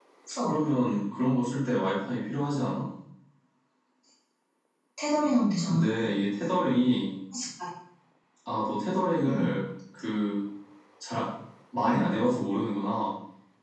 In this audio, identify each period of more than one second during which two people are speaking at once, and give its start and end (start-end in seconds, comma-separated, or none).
none